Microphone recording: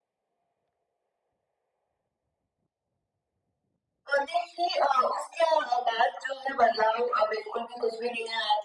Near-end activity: none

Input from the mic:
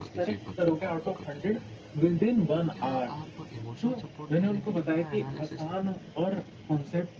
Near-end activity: present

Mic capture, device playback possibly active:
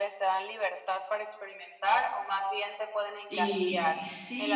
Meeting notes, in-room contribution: present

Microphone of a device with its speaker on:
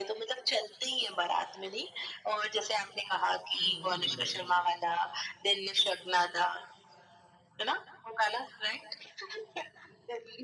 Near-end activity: present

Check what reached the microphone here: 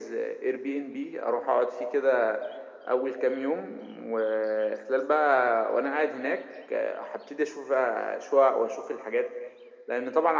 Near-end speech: none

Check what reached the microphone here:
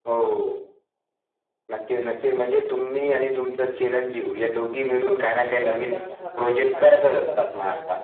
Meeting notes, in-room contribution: present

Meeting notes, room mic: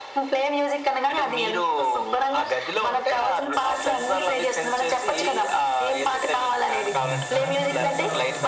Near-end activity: present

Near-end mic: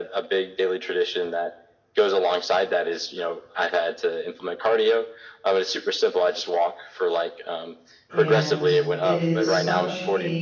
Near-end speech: present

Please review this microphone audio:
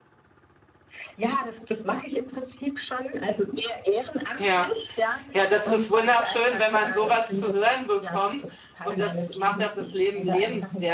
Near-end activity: present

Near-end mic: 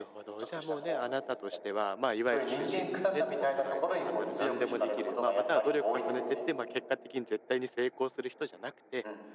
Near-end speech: present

